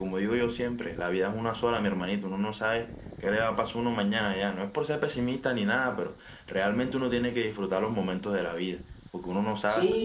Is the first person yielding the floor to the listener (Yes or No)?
Yes